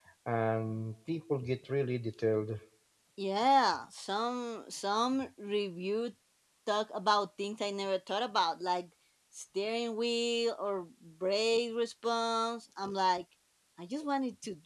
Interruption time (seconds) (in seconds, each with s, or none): none